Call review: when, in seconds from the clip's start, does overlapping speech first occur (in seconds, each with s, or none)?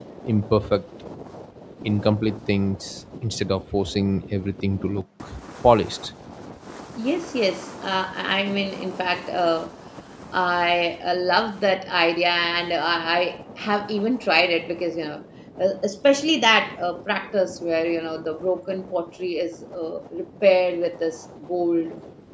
none